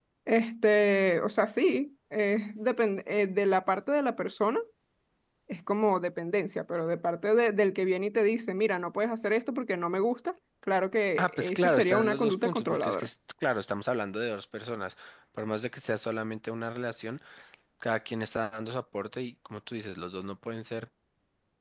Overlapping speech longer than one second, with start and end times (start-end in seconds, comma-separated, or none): 11.2-13.1